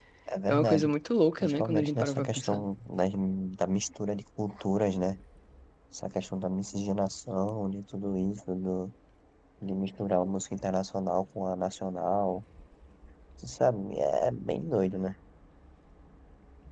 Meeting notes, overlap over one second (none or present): present